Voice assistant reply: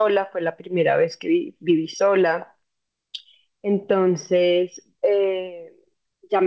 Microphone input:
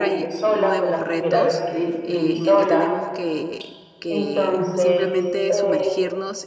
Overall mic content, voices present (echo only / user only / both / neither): both